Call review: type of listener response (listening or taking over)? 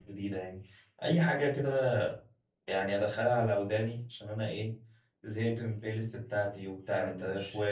listening